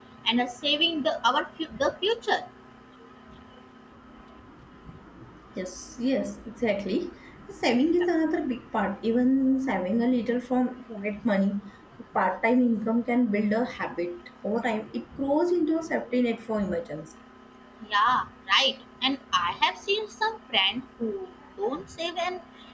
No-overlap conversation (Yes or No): Yes